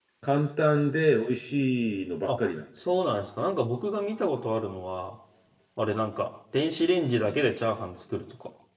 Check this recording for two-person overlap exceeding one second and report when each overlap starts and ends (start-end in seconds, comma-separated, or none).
none